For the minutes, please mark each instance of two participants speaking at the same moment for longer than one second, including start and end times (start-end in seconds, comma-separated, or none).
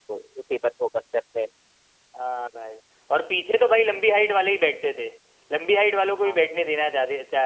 none